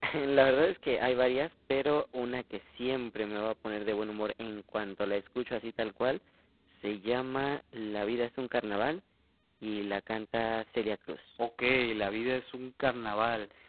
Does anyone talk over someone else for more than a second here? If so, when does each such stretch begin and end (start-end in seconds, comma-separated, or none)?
none